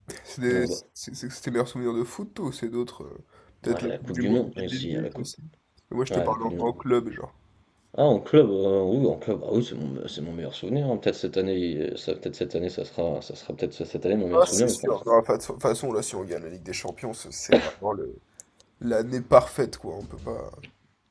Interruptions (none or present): present